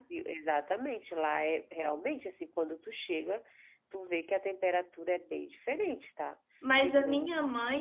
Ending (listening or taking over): taking over